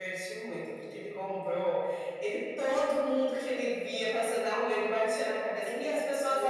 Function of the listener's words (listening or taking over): listening